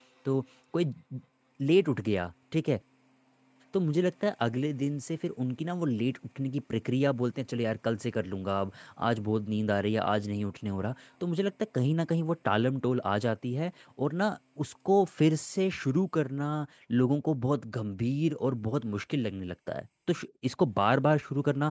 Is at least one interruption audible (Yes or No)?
No